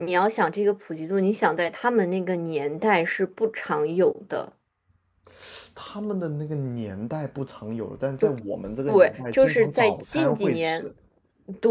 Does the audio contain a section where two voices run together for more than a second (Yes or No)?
Yes